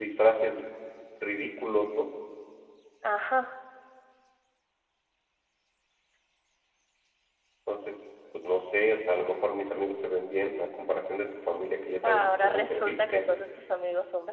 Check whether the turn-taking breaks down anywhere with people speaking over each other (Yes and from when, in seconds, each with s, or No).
Yes, from 12.0 s